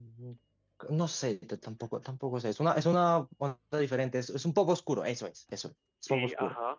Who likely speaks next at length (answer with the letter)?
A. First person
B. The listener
B